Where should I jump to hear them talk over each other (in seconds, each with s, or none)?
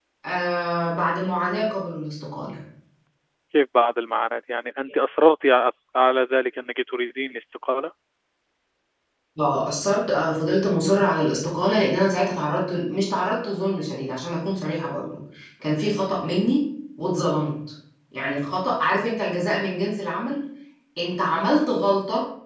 none